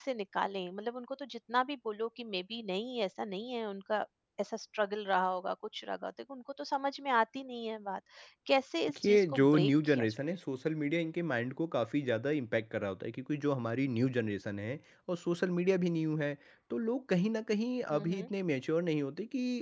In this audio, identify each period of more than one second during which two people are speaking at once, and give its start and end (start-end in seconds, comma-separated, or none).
8.9-10.2